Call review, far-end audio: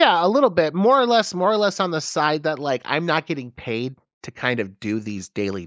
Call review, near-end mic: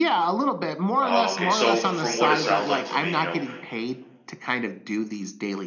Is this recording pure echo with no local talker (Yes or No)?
No